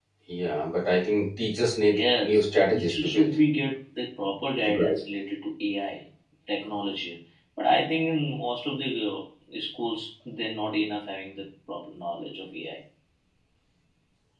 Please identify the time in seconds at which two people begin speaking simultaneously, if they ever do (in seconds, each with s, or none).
1.9 s